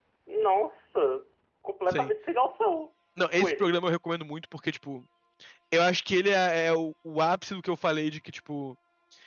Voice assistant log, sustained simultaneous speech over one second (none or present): none